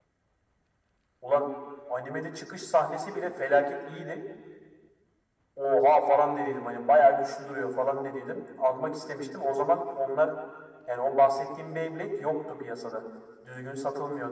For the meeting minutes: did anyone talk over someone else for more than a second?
No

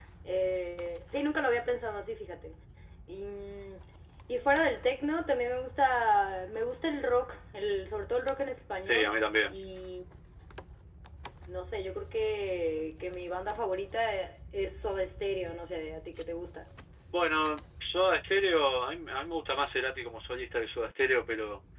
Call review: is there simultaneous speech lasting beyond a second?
No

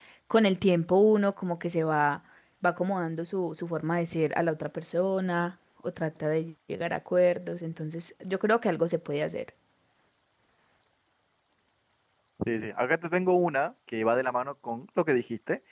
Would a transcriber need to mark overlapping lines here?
No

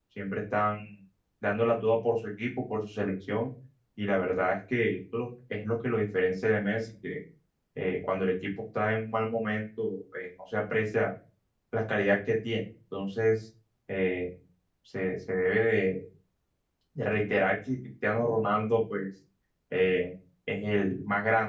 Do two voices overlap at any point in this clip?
No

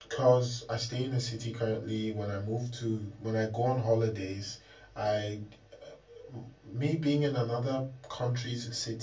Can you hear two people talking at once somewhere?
No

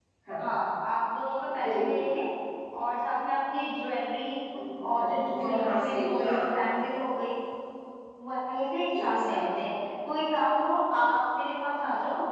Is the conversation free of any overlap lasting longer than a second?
No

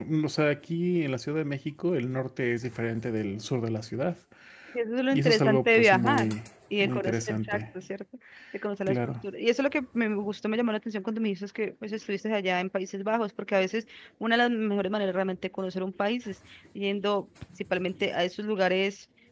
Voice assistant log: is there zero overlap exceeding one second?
No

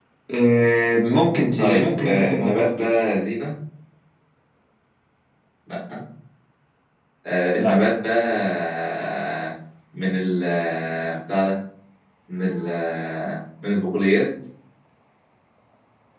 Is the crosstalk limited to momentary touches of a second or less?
No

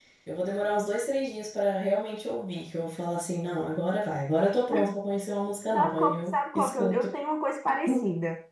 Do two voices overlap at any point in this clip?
Yes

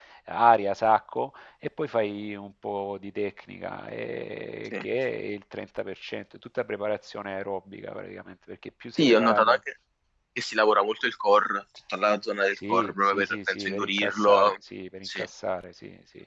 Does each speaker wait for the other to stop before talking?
No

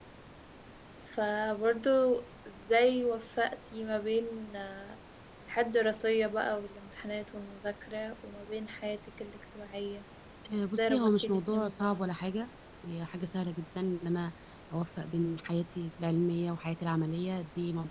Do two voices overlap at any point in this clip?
Yes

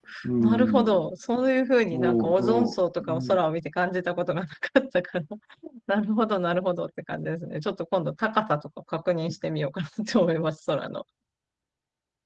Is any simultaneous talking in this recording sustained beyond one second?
Yes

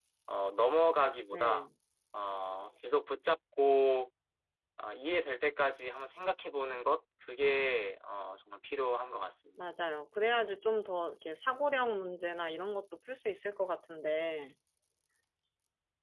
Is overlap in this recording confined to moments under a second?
Yes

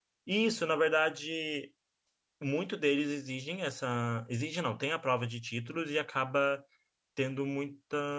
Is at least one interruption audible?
No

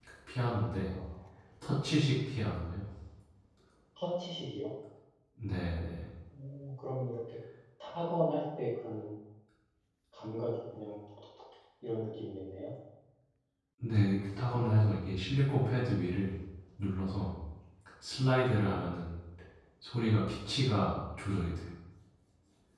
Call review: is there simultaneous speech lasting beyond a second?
No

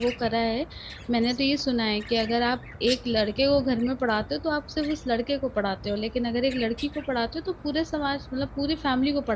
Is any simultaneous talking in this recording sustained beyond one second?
No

